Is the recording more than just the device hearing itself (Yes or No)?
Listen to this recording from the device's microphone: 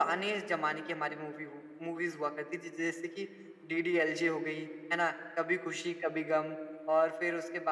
No